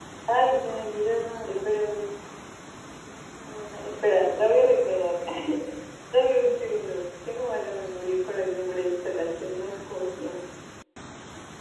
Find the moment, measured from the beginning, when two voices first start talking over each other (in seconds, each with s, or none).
none